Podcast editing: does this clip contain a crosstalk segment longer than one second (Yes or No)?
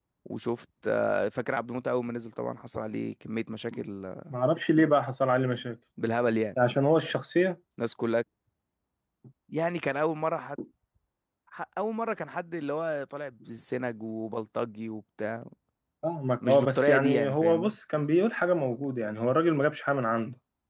Yes